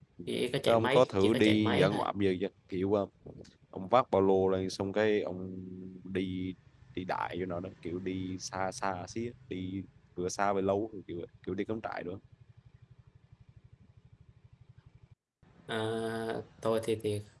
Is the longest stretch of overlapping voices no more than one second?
No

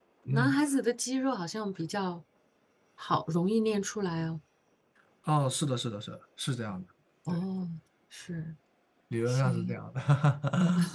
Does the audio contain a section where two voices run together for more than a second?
No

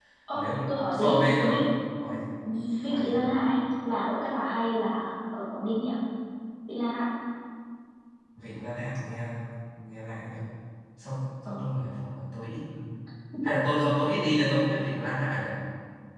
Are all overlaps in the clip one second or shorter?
No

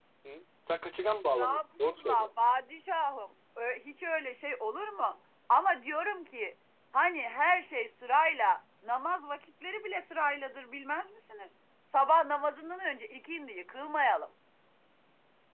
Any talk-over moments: Yes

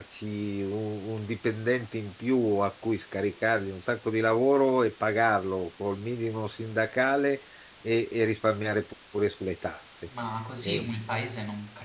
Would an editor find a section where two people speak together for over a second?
No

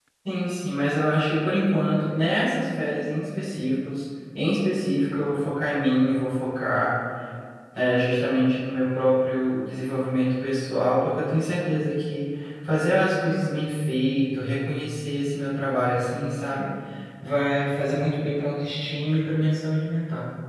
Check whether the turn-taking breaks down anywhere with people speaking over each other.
No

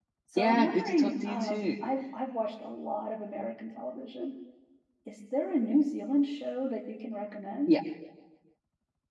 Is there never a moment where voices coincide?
No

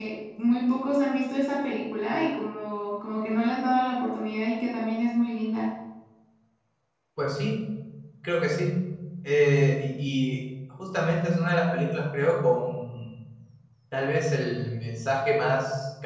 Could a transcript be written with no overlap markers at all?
Yes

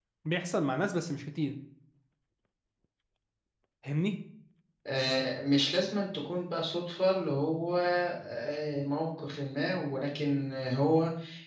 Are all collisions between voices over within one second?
Yes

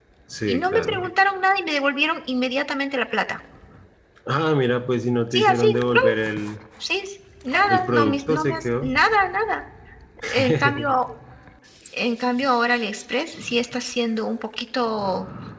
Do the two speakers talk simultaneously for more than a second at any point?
Yes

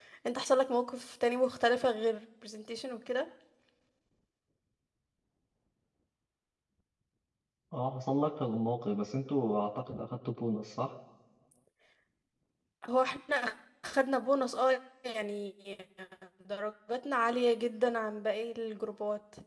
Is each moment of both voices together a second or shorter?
Yes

